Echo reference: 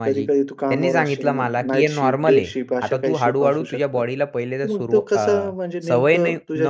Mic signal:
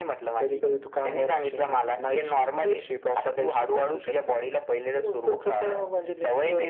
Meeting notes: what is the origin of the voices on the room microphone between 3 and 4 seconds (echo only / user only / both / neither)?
echo only